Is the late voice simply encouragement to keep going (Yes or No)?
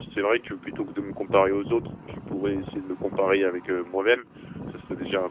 Yes